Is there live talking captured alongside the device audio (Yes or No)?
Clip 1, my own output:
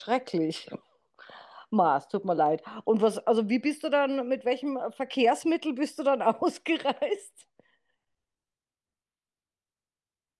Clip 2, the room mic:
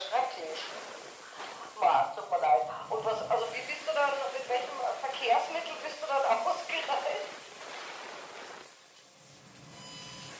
No